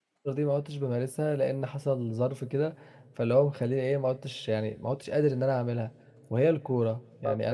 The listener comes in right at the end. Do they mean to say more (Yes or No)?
Yes